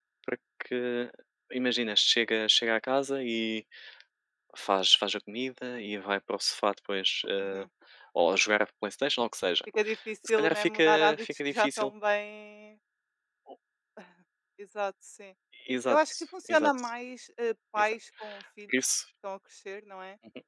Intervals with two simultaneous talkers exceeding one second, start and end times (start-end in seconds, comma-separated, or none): 10.3-11.9